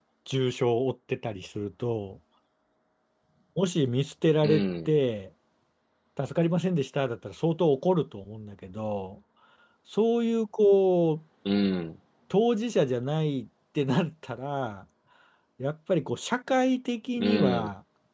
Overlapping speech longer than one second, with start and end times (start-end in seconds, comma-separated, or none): none